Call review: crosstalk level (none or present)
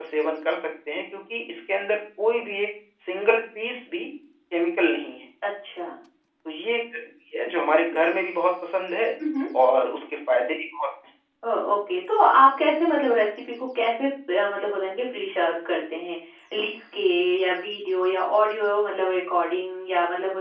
none